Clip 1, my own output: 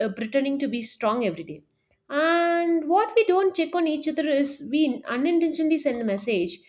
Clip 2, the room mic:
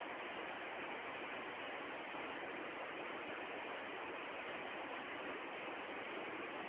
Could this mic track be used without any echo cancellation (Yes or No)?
Yes